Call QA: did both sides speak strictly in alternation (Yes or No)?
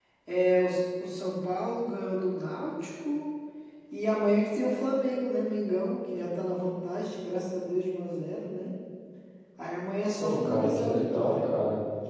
No